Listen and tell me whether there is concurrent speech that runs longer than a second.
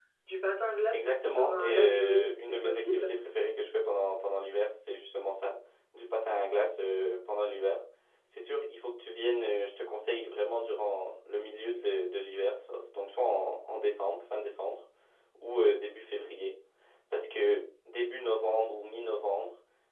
Yes, from 0.9 s

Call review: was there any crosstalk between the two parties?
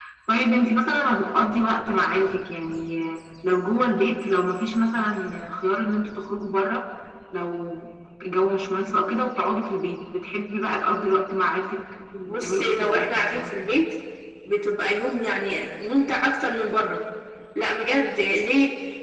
Yes, from 12.1 s

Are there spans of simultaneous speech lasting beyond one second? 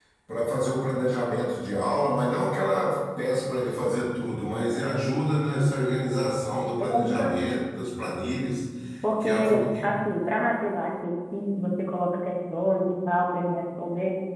No

